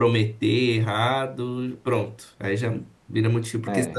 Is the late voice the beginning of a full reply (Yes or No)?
Yes